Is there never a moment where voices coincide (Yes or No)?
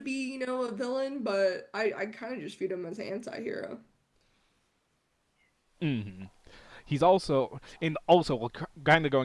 Yes